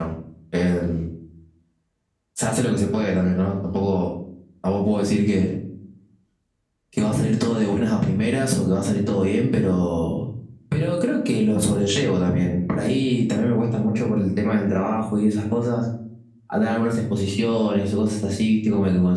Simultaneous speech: No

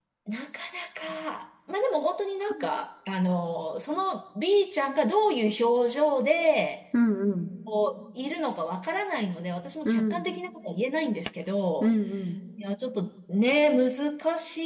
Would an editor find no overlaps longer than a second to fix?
Yes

